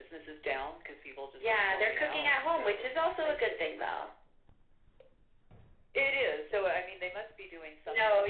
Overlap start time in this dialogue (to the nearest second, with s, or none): 1 s